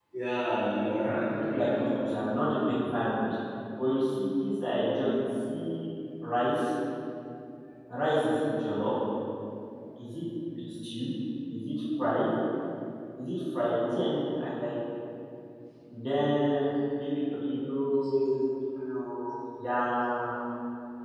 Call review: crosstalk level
present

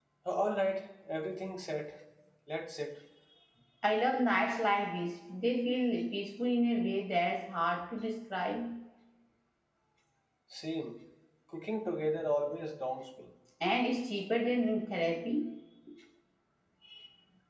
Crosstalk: none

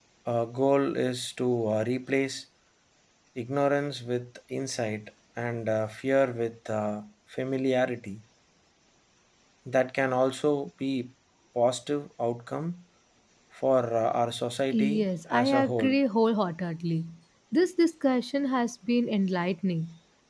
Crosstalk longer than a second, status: present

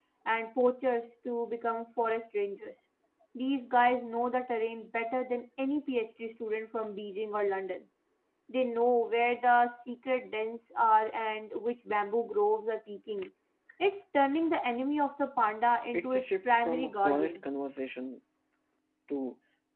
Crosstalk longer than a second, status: present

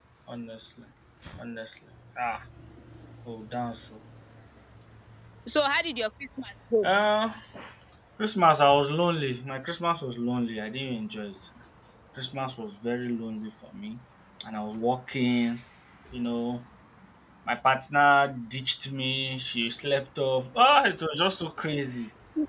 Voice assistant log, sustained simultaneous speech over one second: none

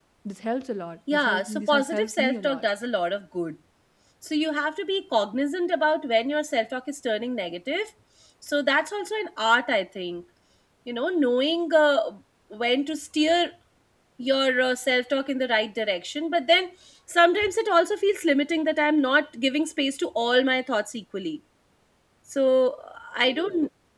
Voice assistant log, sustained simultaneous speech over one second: present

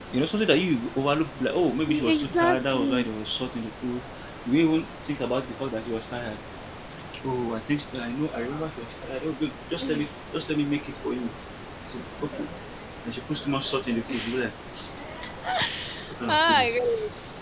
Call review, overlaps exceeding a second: present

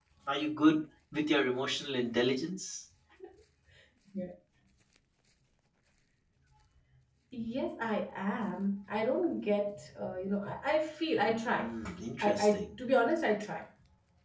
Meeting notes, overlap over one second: none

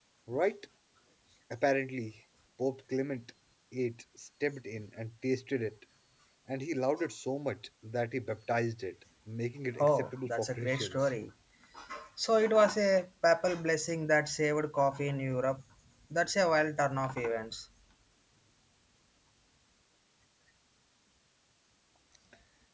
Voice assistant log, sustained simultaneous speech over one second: present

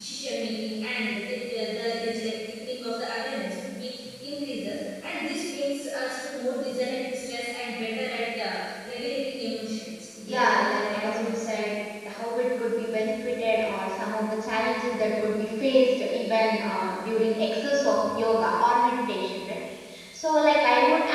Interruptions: present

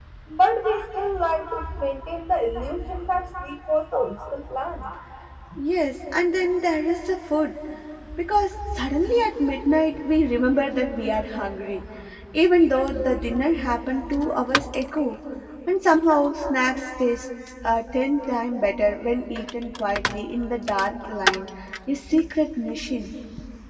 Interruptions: none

